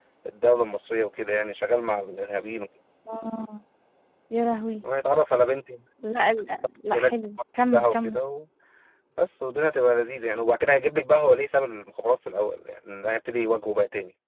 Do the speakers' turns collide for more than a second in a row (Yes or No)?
No